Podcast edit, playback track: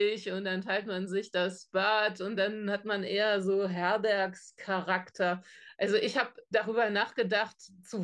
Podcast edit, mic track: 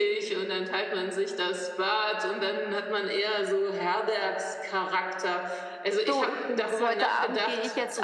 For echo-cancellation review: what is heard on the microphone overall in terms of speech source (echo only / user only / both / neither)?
both